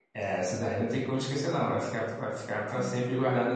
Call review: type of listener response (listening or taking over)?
listening